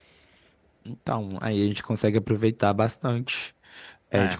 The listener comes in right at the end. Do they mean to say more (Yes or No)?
Yes